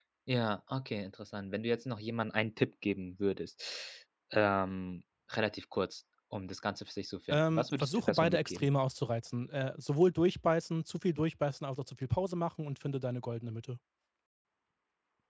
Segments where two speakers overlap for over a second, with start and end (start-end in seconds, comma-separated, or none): 7.3-8.7